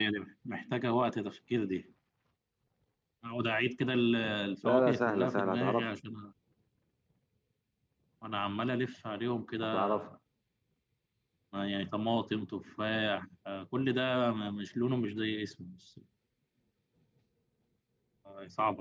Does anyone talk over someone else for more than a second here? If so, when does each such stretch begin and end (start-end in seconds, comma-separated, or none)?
4.7-5.9